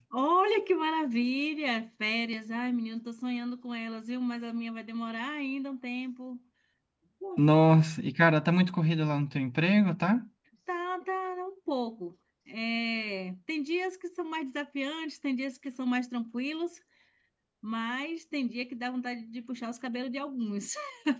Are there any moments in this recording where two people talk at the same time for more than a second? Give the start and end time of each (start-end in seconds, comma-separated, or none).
none